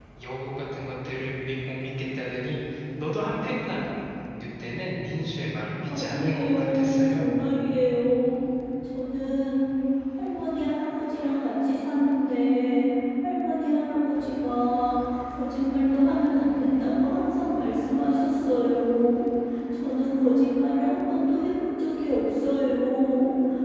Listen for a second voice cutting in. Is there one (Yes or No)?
Yes